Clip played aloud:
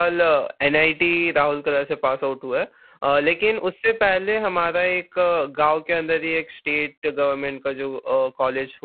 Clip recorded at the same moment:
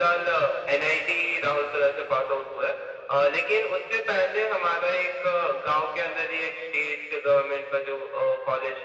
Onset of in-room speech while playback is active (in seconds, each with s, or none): none